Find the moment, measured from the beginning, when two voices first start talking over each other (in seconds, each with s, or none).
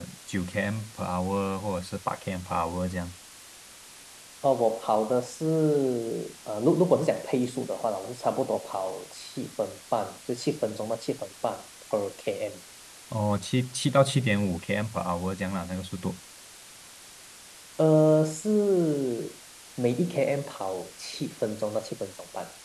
none